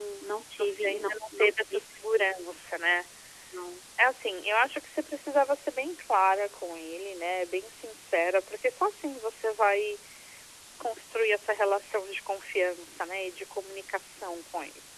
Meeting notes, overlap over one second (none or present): present